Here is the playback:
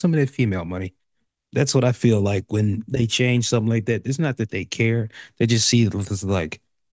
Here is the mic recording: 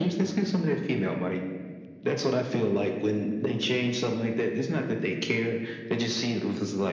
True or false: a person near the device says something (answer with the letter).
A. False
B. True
A